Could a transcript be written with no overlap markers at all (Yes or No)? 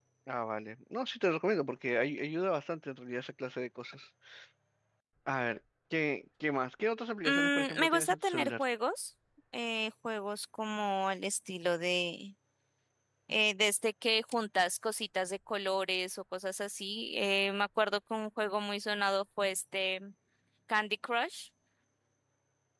No